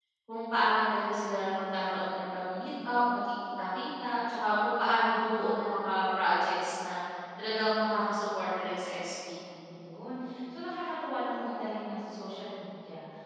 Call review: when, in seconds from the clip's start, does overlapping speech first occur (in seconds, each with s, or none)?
none